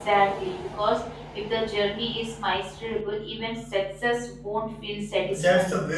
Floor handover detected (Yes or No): Yes